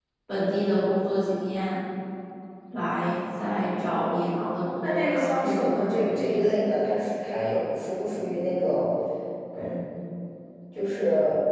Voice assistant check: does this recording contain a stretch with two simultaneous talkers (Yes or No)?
Yes